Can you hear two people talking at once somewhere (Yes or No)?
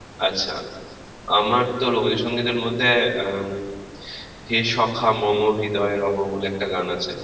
No